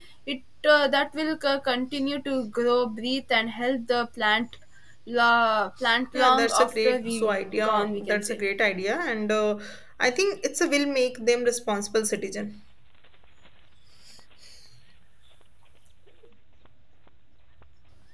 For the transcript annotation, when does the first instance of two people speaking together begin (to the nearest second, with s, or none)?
6 s